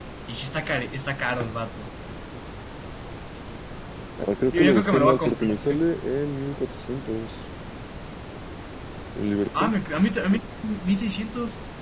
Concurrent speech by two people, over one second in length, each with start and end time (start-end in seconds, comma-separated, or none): 4.5-5.7